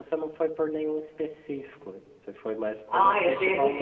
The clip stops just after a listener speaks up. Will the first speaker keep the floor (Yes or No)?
No